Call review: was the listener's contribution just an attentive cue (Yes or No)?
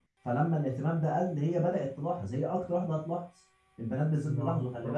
Yes